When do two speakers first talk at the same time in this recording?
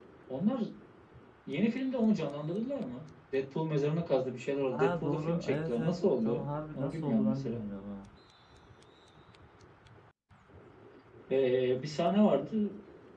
5 s

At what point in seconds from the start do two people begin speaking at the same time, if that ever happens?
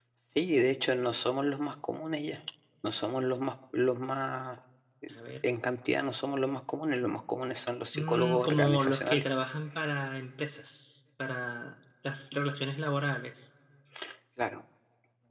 8 s

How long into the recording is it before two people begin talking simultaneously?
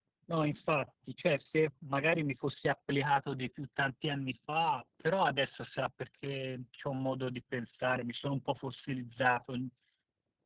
none

